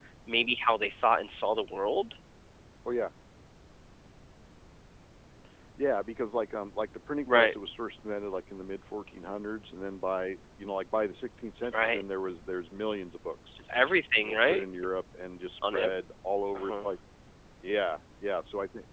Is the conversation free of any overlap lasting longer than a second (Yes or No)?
Yes